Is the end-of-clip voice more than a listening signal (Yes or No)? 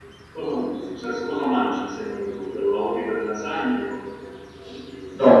Yes